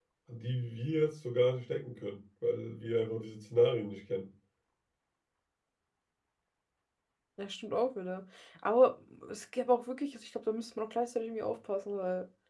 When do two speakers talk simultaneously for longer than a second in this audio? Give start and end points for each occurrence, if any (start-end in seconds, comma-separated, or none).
none